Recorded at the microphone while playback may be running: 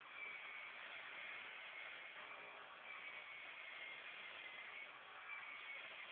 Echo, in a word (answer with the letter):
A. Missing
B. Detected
A